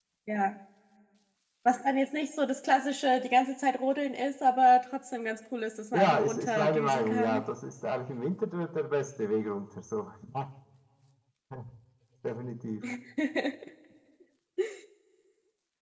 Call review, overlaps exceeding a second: present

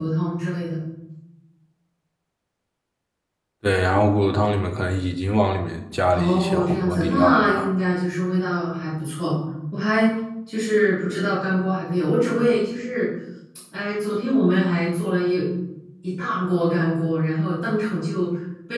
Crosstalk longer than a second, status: present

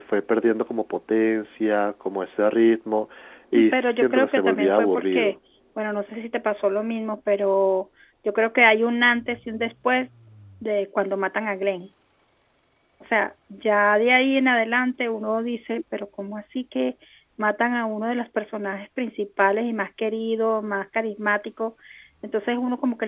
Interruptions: present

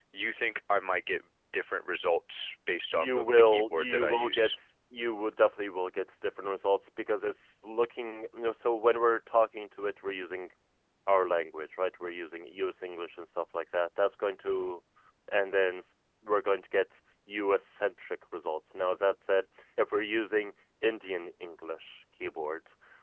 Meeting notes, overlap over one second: present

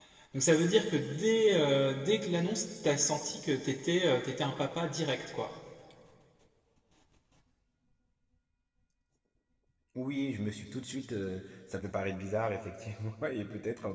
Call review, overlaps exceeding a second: none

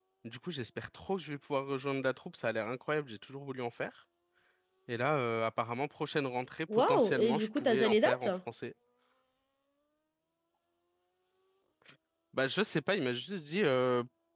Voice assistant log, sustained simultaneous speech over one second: present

